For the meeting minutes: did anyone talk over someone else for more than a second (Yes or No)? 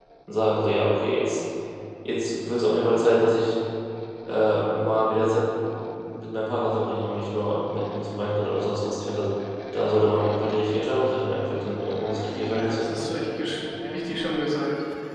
No